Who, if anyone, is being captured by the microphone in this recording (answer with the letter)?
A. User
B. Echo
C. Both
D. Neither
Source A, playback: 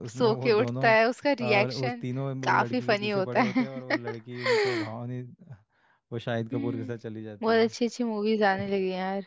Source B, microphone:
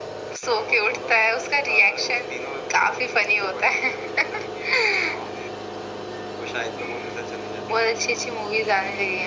B